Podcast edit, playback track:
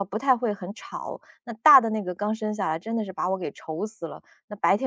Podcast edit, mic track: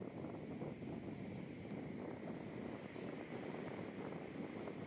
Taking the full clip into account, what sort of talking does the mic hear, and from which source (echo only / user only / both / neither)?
neither